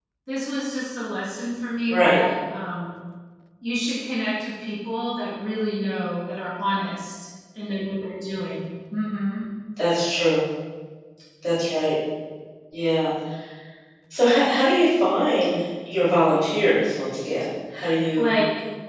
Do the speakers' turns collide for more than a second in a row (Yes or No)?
No